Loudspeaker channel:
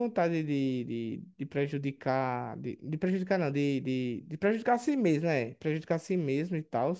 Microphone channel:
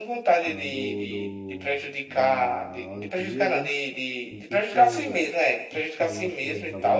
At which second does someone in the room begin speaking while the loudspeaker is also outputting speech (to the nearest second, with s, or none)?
0 s